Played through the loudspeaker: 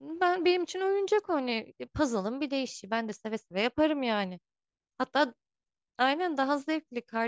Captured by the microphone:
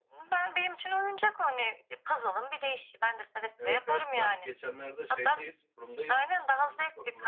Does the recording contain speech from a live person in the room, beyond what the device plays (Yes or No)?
Yes